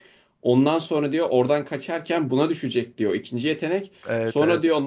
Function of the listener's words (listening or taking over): listening